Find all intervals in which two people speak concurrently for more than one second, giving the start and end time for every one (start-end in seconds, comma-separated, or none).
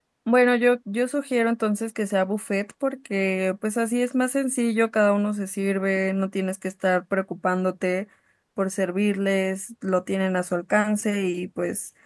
none